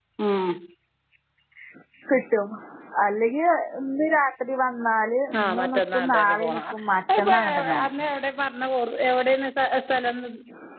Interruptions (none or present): present